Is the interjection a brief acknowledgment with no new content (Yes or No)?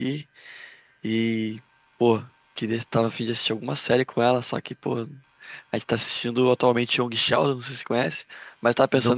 Yes